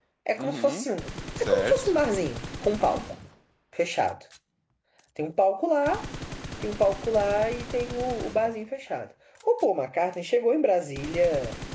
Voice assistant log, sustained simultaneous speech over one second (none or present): none